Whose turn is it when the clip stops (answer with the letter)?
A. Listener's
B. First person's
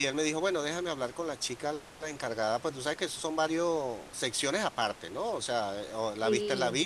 B